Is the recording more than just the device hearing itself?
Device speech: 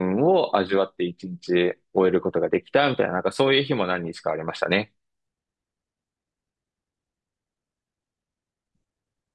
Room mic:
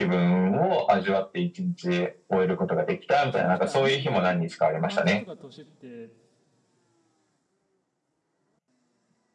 Yes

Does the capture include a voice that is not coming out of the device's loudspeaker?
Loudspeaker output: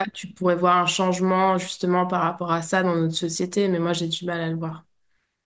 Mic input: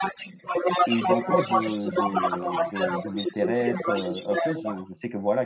Yes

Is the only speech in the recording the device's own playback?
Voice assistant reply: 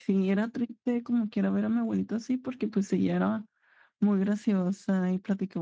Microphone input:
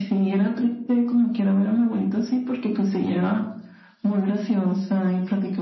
Yes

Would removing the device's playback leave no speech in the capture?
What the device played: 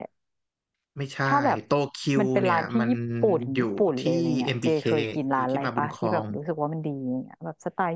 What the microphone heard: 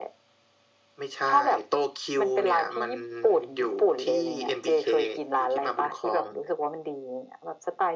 Yes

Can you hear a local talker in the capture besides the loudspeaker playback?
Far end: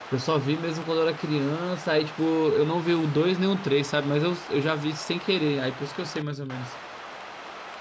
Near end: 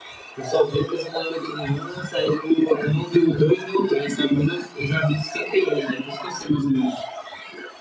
No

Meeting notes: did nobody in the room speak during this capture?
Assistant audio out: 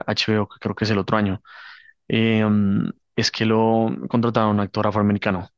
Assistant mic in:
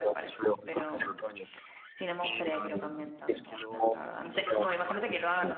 No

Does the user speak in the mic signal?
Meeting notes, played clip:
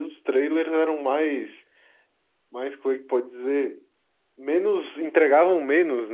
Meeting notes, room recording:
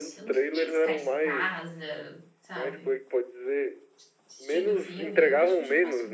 Yes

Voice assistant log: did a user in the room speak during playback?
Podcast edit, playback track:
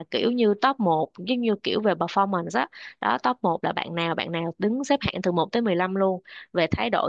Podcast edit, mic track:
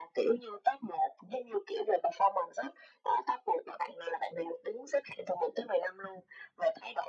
No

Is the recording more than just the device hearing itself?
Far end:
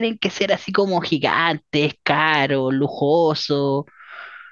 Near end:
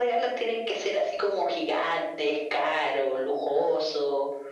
No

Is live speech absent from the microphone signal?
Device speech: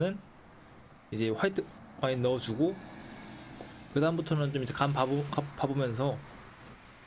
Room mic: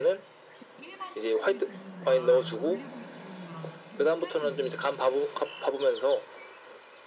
No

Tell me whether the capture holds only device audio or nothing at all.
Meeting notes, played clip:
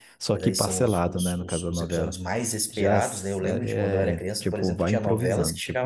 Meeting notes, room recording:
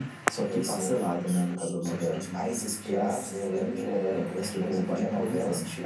Yes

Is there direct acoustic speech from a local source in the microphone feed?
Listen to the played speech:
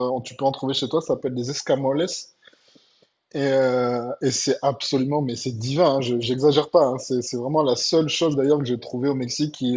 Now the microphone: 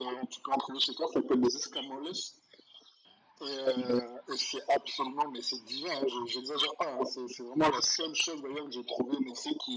No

